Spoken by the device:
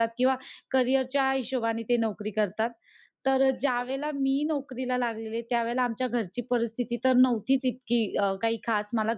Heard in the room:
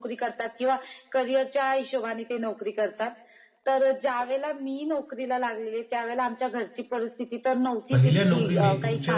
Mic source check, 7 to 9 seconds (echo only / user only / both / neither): both